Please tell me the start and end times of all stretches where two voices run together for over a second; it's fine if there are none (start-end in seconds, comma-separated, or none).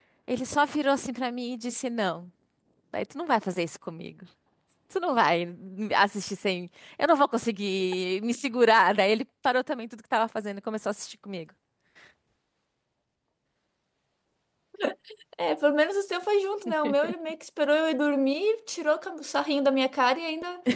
none